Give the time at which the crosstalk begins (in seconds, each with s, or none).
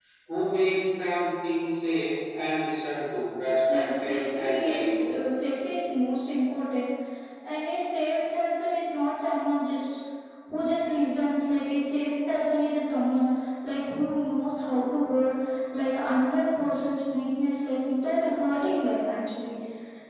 3.7 s